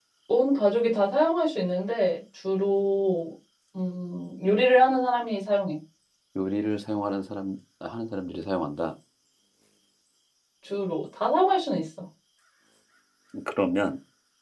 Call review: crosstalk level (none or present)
none